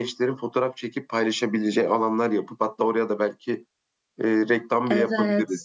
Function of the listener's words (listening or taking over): taking over